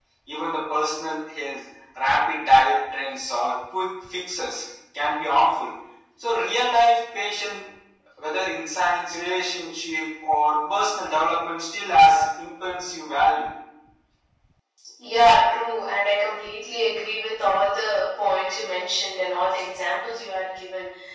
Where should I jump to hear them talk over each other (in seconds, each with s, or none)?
none